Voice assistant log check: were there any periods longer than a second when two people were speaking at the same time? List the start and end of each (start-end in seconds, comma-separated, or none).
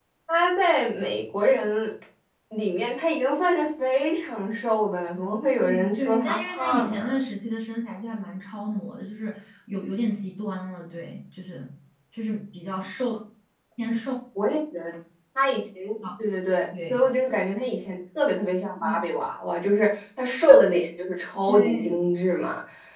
5.6-7.0